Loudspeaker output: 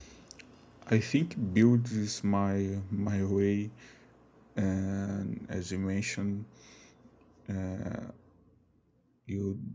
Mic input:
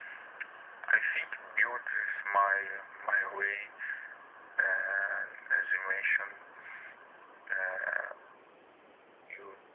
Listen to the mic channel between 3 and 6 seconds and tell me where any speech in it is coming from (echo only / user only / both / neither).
echo only